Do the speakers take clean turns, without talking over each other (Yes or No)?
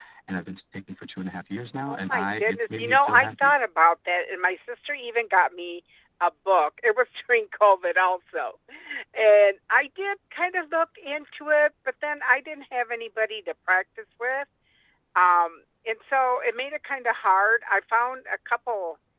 No